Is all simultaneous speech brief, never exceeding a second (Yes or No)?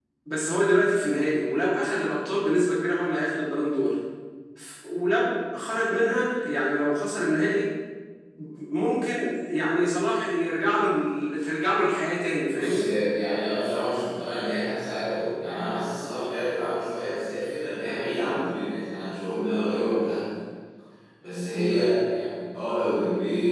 Yes